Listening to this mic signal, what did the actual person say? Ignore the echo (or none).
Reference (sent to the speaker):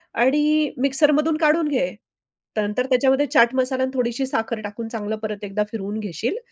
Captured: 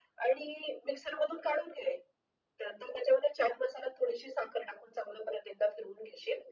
none